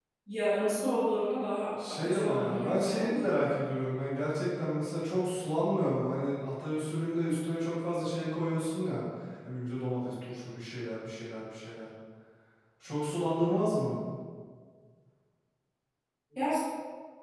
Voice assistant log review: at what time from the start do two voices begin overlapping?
2 s

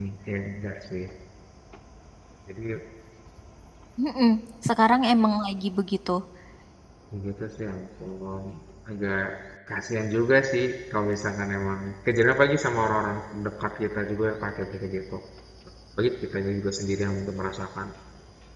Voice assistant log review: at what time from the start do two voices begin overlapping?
none

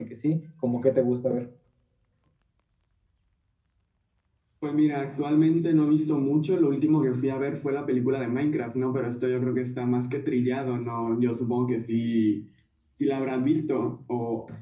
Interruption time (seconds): none

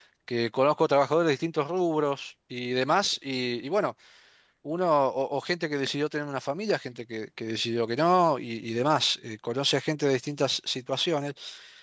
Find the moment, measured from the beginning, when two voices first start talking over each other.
none

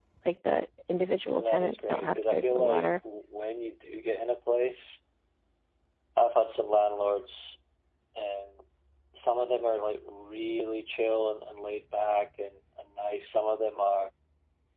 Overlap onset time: 1 s

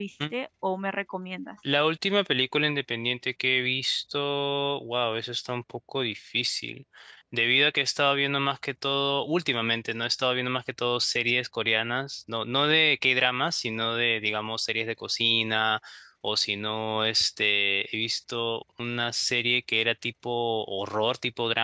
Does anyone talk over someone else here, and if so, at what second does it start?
none

